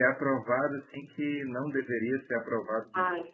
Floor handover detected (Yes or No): Yes